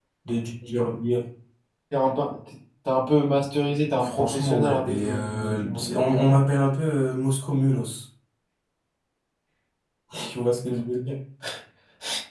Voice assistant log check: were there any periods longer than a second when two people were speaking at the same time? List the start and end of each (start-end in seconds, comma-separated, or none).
4.0-6.4